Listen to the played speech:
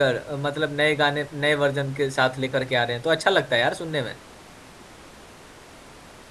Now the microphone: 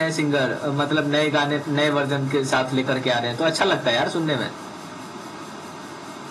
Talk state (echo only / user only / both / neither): echo only